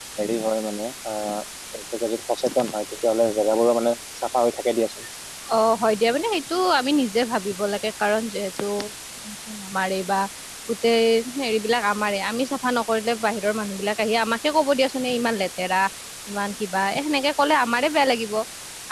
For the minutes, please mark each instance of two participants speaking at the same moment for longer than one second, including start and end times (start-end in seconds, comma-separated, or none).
none